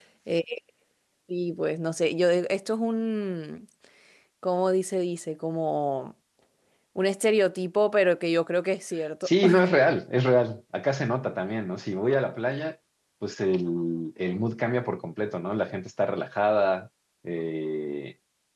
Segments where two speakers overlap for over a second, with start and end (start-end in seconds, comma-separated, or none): none